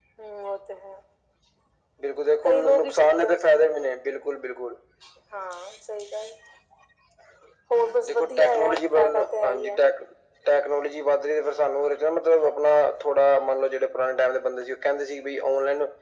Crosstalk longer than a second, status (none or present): present